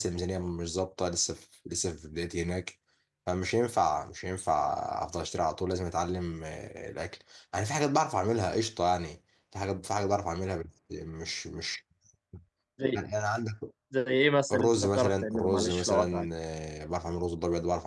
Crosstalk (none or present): present